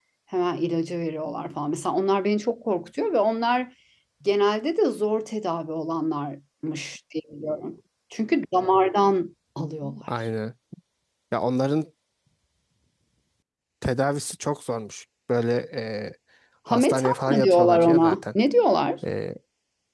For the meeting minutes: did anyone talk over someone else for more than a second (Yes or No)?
Yes